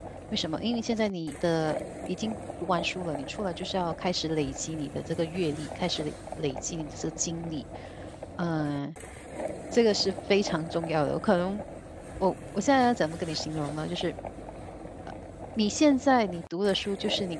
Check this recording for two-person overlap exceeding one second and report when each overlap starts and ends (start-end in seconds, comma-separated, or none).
none